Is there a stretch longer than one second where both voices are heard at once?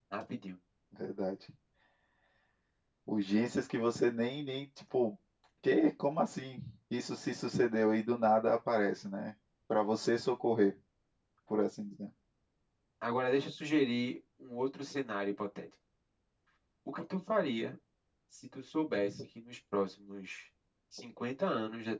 No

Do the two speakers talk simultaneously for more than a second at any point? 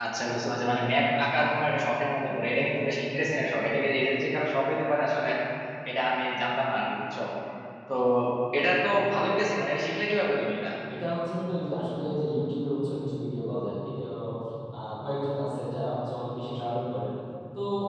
No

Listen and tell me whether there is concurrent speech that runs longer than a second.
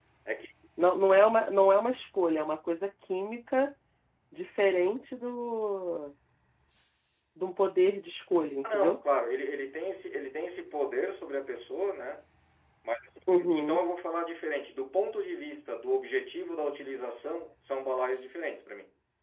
No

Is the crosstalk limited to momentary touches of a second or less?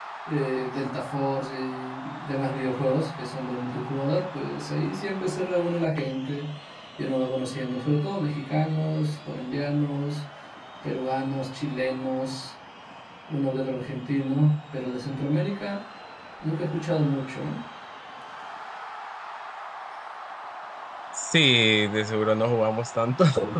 Yes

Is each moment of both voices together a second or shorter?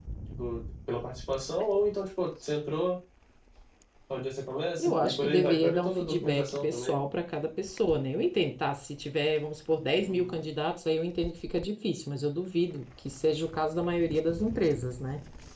No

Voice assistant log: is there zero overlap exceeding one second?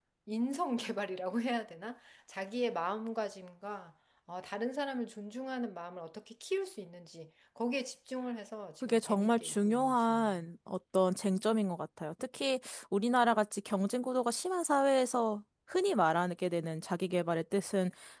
No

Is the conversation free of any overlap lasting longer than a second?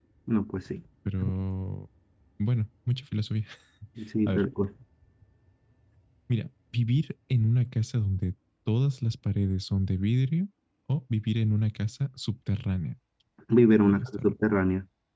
Yes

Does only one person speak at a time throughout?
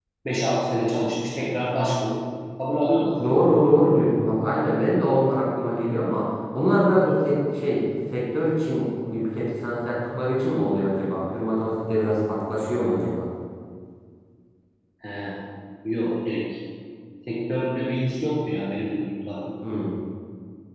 Yes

